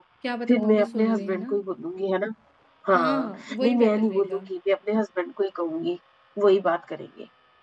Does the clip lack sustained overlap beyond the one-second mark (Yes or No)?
No